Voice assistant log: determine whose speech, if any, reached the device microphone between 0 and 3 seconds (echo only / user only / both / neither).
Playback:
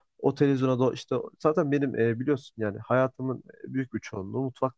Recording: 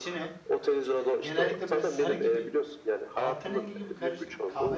both